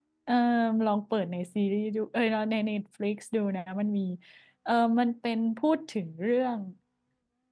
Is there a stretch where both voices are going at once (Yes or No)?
No